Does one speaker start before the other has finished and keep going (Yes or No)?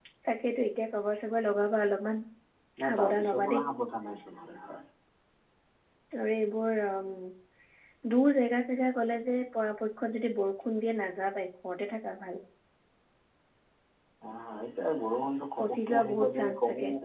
Yes